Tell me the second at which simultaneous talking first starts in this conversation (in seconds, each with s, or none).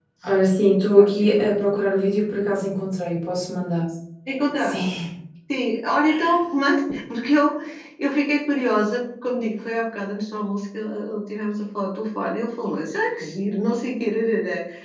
0.6 s